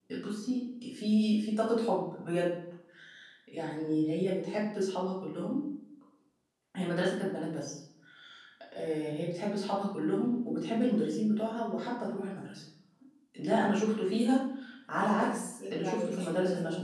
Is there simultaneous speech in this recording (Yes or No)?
Yes